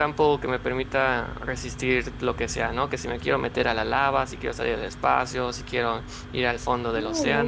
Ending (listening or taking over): taking over